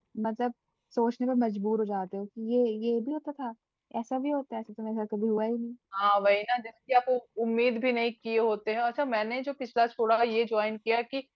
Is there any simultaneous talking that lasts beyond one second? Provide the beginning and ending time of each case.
none

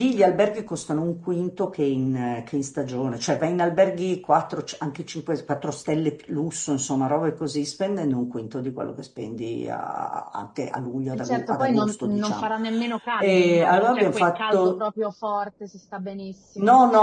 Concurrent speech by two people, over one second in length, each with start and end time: 11.2-12.5, 13.2-14.8

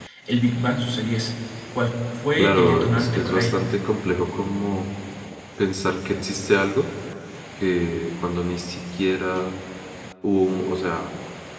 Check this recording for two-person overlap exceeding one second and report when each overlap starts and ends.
2.4-3.7

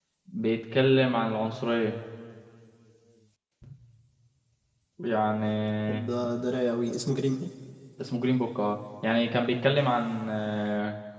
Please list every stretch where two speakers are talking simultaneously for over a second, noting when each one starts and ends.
none

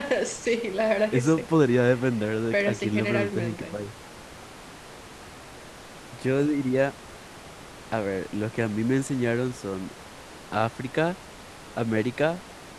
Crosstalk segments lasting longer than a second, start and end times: 2.5-3.8

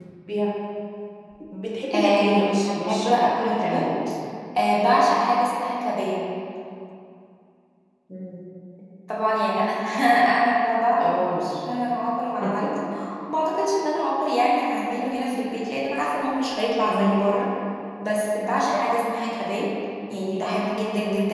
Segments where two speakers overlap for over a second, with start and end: 1.9-3.9

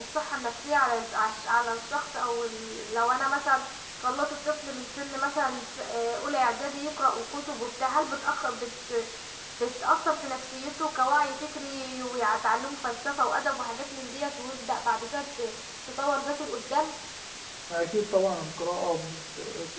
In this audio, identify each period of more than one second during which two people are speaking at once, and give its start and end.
none

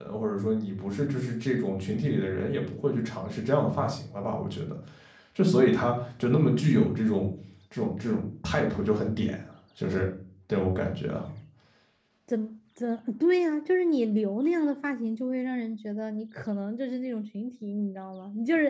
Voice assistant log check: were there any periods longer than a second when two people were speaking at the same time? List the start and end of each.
none

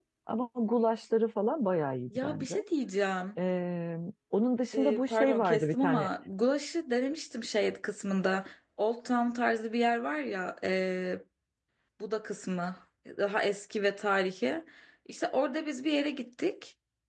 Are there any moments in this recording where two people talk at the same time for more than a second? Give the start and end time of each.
4.7-6.1

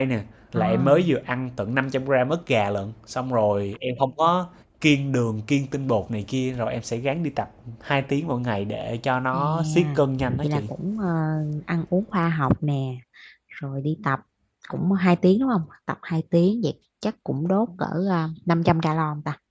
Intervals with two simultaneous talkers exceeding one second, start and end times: 9.3-10.6

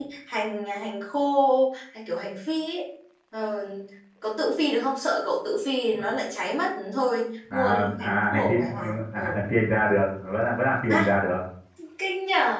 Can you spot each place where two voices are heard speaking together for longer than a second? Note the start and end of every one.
7.5-9.4

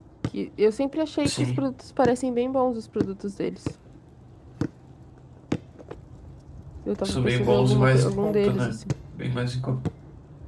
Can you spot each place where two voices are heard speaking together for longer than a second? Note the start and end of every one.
7.0-8.7

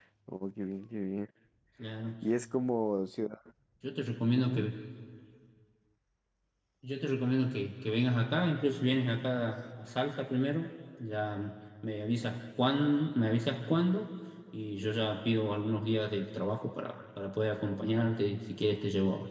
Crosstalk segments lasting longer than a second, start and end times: none

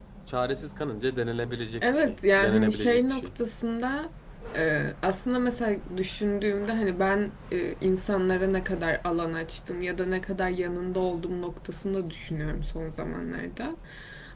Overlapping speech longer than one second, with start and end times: 1.8-3.3

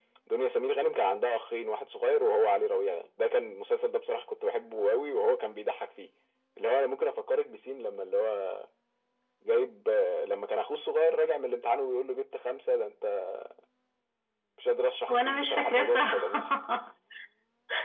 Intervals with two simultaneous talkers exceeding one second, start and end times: 15.1-16.5

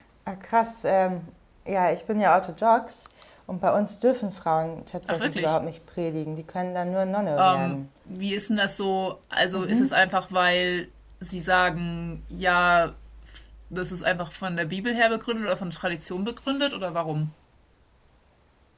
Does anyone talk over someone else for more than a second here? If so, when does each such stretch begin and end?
none

